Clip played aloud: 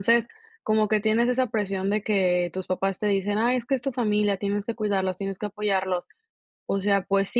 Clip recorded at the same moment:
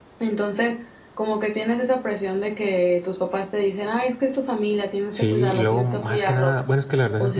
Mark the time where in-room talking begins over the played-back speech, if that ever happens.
5.1 s

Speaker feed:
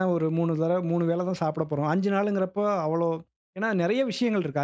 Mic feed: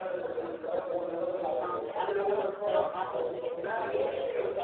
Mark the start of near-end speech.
1.6 s

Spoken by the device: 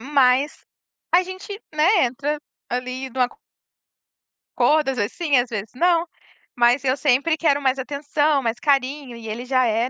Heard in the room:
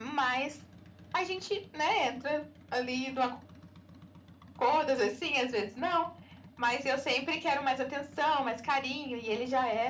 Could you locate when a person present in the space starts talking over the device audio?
none

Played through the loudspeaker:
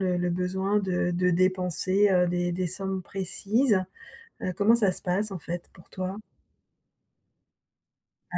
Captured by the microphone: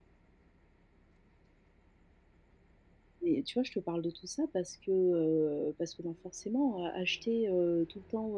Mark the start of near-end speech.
3.2 s

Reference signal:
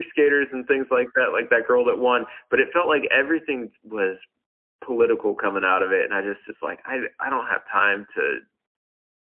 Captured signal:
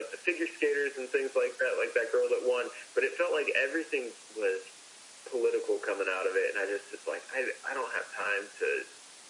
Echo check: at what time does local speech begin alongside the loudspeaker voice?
none

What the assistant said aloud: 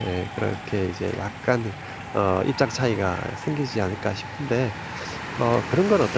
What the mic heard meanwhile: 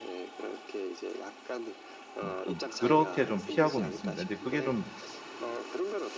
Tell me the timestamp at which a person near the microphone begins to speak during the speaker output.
2.2 s

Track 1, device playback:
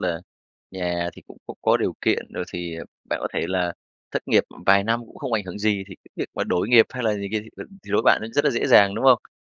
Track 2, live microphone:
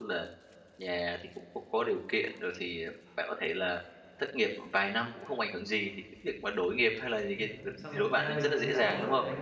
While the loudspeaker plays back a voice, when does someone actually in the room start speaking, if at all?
7.3 s

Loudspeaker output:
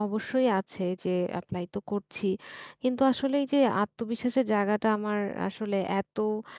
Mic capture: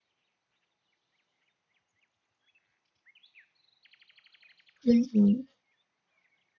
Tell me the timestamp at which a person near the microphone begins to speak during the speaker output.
4.9 s

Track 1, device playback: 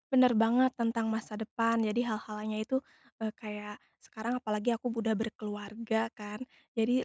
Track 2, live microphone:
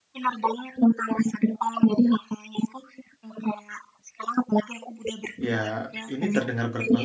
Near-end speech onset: 5.4 s

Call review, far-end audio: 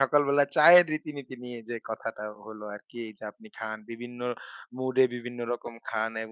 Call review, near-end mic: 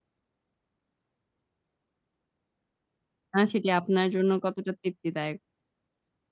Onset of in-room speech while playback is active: 3.4 s

